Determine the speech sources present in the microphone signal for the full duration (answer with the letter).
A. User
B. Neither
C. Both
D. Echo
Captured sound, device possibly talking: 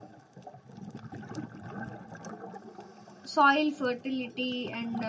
A